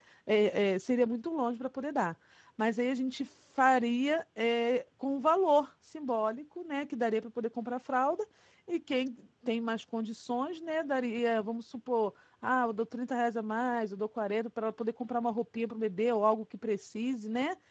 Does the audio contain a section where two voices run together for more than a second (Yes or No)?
No